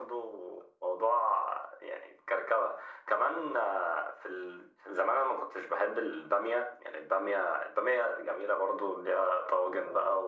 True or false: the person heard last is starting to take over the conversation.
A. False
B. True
A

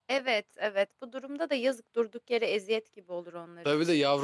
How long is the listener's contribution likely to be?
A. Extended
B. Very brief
A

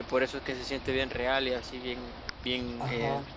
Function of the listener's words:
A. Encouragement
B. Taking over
B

